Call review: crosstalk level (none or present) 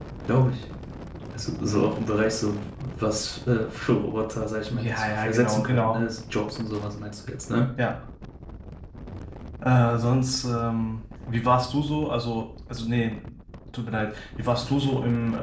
present